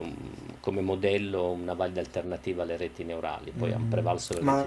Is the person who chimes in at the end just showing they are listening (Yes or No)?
No